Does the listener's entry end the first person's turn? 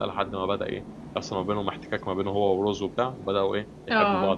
No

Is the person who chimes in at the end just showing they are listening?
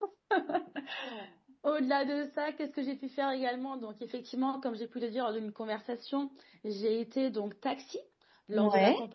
Yes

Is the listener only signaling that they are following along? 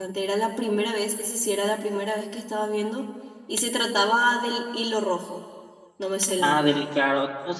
No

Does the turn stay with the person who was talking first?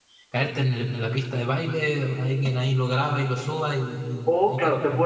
No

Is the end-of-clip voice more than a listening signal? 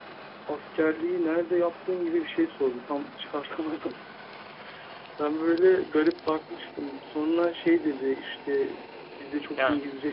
No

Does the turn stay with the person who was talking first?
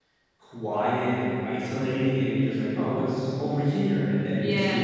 Yes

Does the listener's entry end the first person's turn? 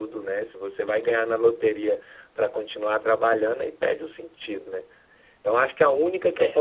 No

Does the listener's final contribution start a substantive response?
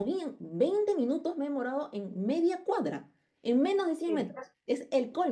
No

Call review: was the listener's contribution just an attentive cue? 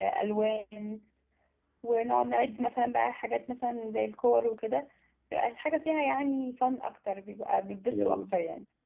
No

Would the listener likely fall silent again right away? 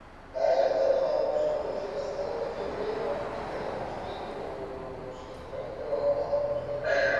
No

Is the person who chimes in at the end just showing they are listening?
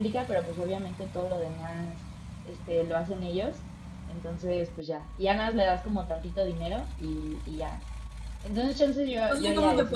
No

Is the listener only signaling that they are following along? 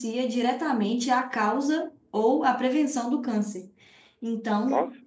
Yes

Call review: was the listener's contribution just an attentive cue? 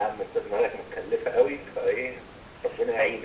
No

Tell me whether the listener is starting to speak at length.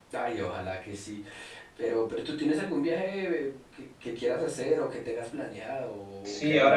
Yes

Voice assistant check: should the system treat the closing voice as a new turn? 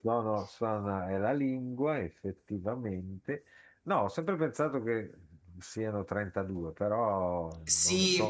Yes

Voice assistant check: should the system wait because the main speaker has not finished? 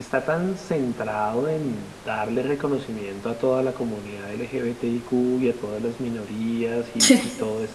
Yes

